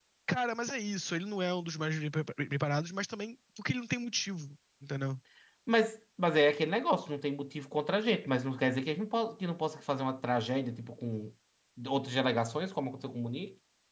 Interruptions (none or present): none